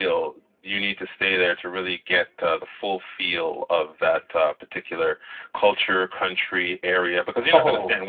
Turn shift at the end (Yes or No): No